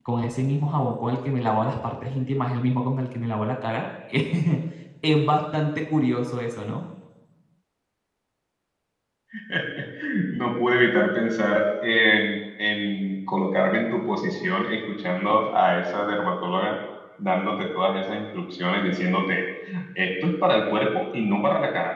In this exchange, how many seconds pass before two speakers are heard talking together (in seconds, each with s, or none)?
none